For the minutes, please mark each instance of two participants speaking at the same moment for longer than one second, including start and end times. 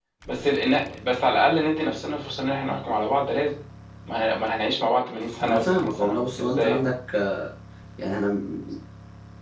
5.4-6.8

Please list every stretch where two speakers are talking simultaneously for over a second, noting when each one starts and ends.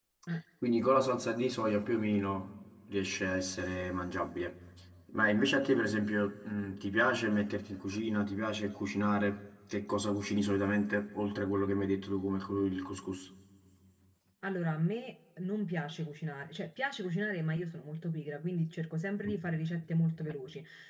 none

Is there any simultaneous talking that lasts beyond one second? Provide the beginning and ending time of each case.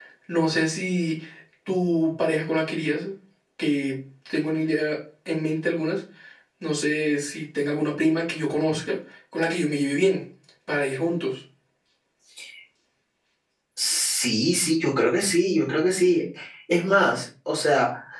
none

